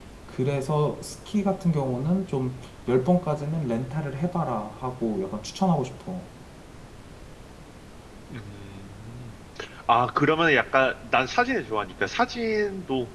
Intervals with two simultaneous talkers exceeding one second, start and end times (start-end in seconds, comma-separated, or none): none